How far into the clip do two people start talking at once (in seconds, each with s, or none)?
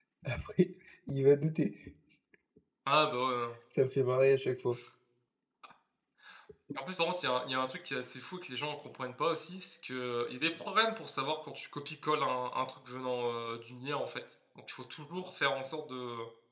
none